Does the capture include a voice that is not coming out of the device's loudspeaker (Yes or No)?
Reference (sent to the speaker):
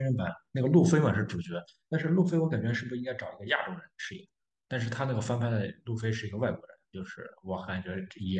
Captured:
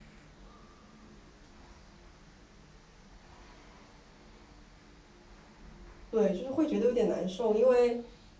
Yes